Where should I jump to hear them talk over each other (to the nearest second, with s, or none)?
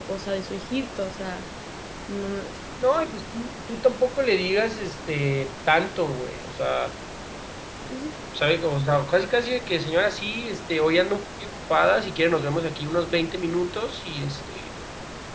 none